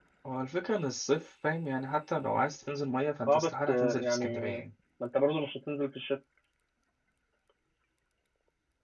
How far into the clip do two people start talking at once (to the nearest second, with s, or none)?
3 s